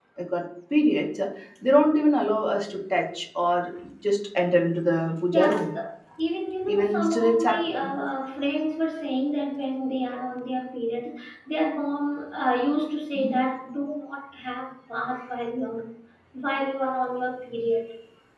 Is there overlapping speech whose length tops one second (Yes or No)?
Yes